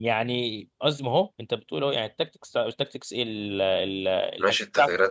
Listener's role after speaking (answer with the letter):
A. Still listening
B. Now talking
B